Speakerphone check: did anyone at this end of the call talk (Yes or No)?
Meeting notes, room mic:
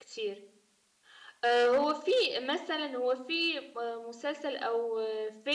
Yes